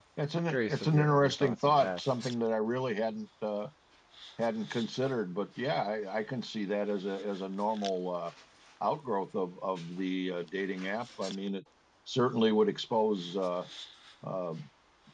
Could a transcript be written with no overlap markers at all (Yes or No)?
No